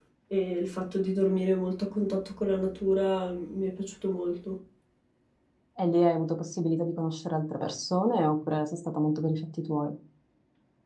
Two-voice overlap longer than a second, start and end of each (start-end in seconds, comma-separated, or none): none